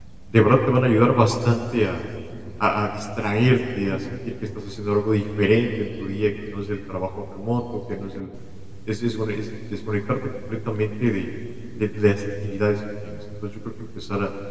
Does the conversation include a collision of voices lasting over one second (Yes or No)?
No